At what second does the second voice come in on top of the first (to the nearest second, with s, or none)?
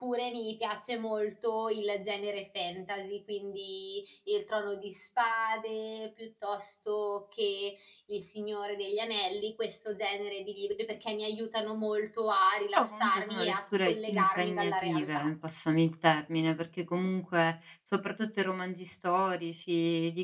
13 s